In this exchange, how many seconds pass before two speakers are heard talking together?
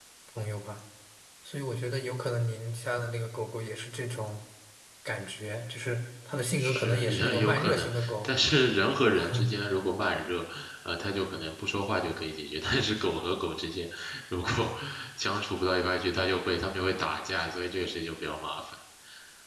6.6 s

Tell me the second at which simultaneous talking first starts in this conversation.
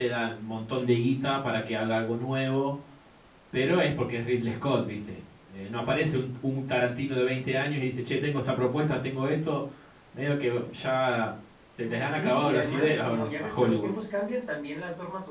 11.8 s

